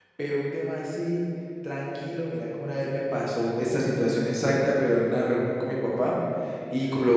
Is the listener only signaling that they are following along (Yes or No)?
Yes